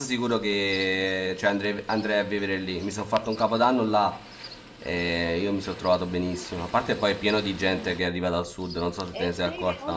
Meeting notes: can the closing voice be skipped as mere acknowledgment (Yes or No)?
No